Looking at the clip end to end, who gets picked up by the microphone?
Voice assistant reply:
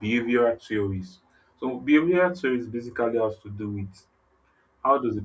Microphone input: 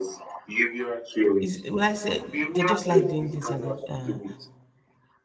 both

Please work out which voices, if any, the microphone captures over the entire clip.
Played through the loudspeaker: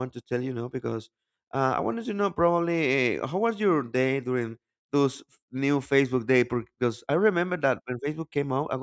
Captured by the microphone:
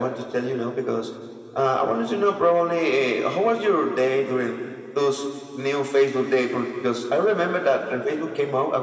echo only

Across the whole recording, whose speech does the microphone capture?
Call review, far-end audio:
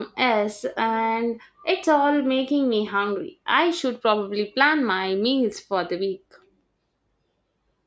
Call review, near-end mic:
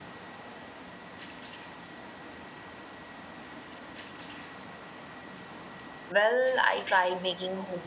user only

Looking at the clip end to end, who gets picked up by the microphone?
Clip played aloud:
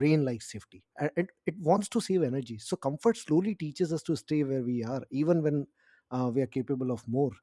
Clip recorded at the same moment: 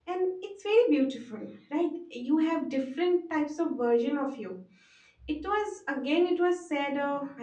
user only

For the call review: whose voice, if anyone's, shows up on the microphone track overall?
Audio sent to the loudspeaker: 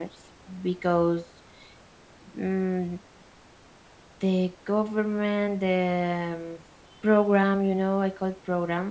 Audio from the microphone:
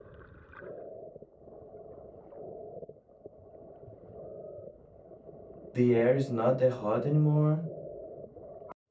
user only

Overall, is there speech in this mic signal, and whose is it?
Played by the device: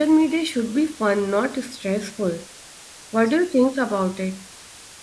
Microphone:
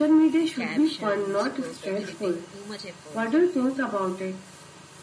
both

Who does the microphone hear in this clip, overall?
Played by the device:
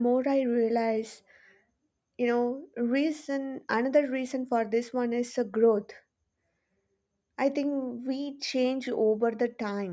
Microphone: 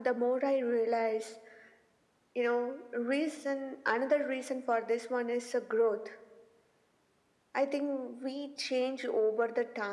echo only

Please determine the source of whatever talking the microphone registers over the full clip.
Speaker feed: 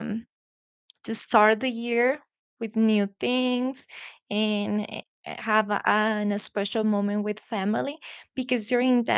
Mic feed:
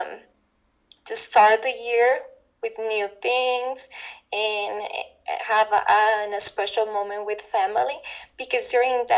echo only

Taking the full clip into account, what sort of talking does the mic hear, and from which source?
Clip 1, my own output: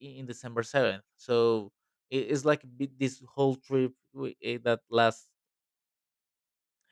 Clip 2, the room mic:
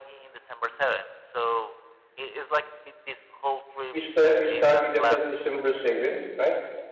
both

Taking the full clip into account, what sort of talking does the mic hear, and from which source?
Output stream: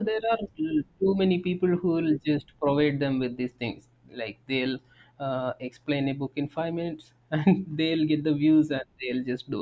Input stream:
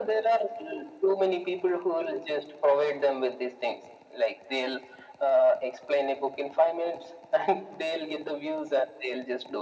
echo only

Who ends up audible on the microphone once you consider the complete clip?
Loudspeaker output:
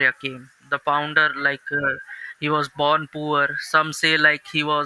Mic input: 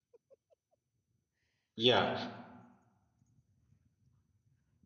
user only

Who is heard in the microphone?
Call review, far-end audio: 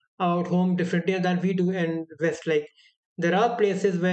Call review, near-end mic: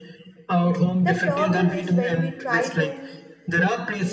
both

